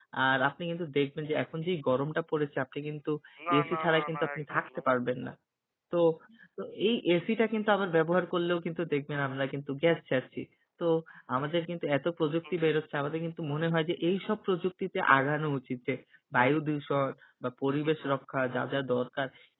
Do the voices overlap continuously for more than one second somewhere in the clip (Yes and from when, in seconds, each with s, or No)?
Yes, from 3.6 s